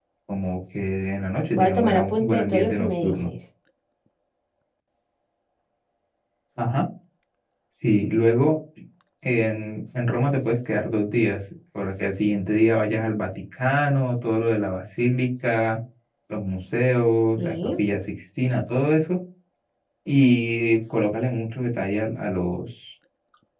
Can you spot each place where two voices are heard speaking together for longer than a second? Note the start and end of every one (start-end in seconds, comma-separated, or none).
1.5-3.3